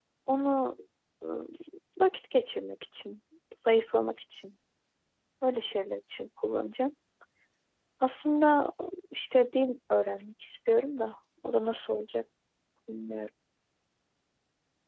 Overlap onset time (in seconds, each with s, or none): none